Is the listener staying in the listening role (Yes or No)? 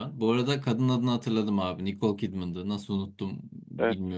Yes